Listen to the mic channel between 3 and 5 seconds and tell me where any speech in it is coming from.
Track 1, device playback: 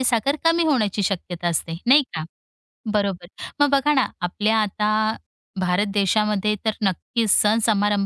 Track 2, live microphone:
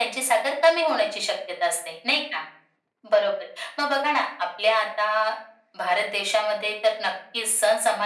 echo only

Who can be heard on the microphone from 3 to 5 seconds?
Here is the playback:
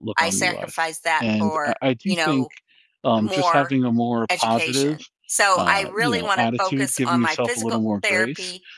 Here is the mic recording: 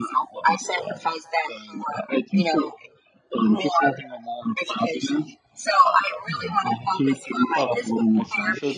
echo only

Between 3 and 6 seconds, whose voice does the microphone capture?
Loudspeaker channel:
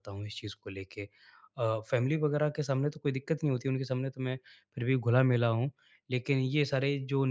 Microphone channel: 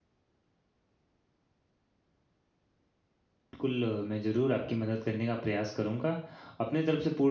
user only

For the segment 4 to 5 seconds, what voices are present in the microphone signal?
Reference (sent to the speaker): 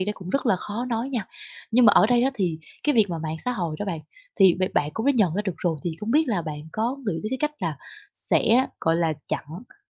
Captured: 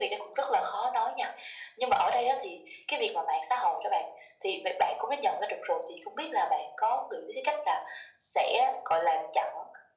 echo only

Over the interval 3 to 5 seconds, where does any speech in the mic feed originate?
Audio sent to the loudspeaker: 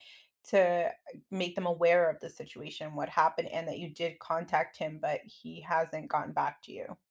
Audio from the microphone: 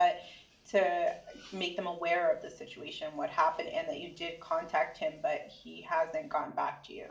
echo only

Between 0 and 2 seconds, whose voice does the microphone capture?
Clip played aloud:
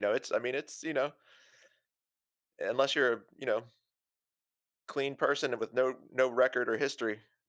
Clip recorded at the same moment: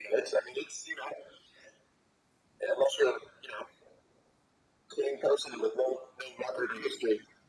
echo only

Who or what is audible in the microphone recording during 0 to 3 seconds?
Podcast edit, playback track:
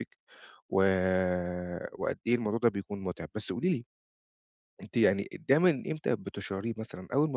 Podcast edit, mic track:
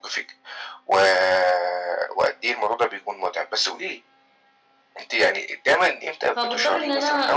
echo only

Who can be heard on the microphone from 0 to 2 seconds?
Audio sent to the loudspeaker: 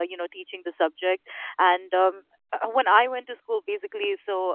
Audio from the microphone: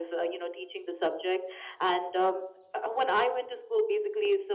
echo only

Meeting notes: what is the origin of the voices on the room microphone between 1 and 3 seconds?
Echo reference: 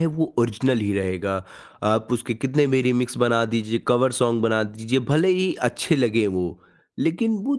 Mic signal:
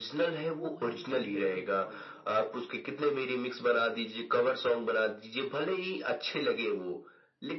both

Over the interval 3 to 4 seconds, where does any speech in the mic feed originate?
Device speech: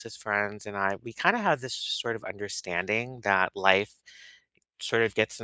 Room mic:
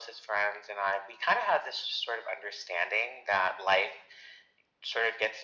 echo only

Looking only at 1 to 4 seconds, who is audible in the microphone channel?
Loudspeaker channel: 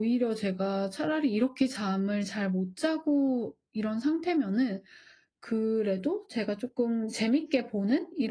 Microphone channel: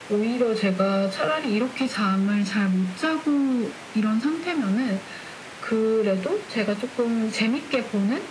echo only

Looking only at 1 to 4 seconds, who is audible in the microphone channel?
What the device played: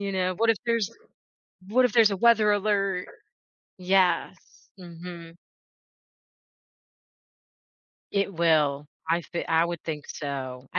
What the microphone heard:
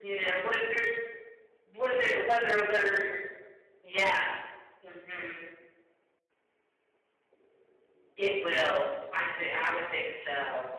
echo only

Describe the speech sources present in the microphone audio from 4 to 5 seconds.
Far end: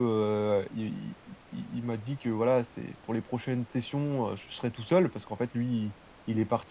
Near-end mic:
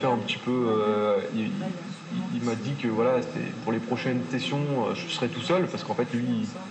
both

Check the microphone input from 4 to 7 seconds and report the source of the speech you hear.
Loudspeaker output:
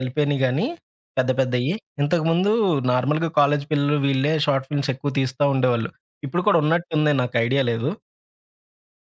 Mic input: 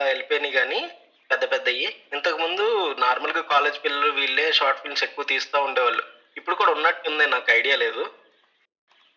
echo only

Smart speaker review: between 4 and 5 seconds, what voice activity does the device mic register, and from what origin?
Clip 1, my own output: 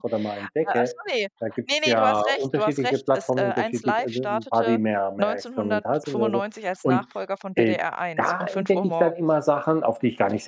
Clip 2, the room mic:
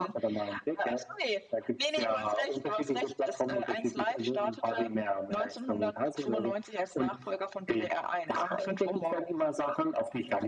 echo only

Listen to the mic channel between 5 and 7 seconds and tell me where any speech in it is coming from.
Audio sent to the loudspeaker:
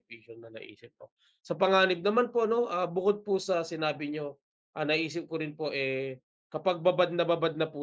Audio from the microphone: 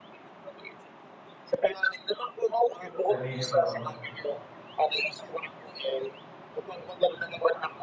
echo only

